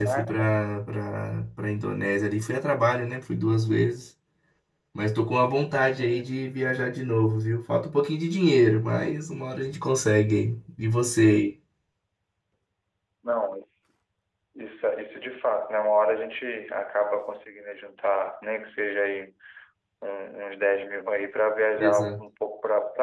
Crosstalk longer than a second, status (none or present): none